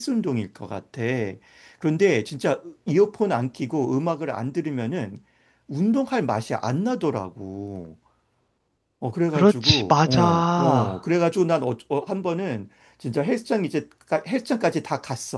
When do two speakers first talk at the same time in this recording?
9 s

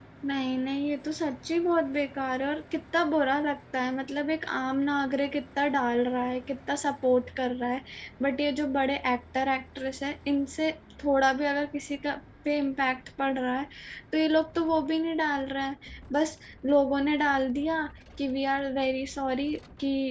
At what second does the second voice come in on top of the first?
none

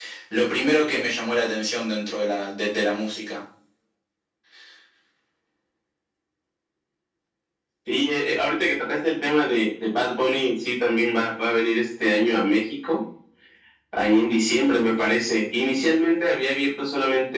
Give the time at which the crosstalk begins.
none

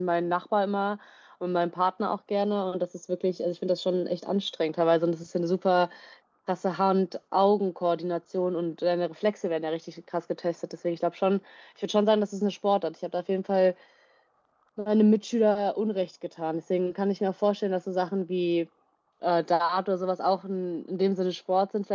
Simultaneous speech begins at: none

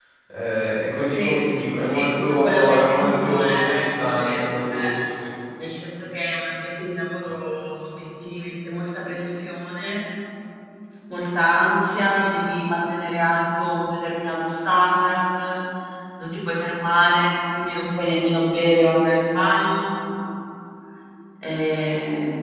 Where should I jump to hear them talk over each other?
1 s

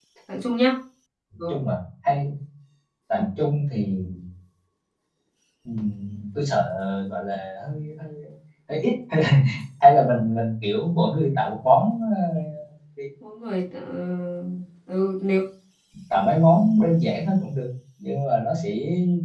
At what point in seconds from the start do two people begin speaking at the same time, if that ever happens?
none

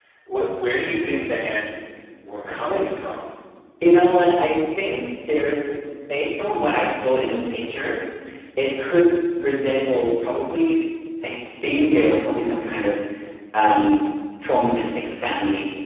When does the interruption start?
none

